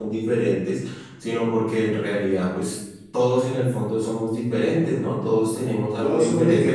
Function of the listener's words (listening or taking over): taking over